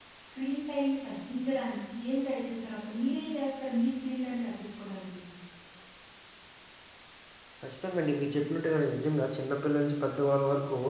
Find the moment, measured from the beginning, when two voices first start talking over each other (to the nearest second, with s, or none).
none